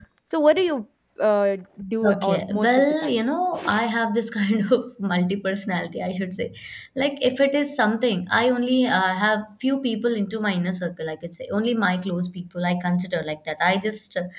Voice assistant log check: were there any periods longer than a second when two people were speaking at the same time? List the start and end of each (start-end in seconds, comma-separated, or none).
2.0-3.2